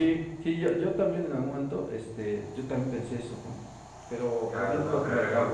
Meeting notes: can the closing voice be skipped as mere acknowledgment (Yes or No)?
No